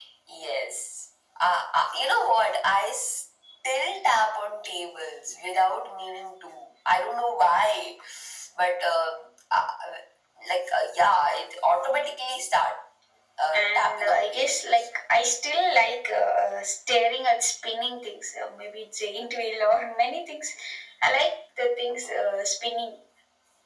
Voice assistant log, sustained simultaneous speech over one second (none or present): present